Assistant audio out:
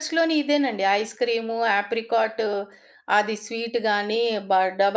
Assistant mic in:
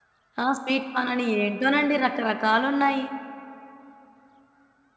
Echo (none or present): none